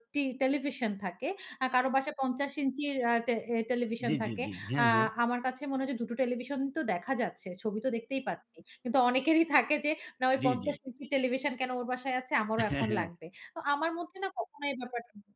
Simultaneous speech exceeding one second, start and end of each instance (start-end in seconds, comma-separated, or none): none